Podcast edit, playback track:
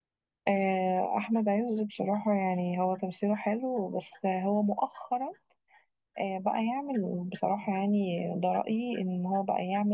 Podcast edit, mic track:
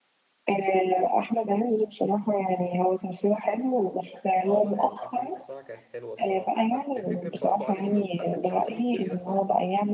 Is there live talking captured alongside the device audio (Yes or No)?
Yes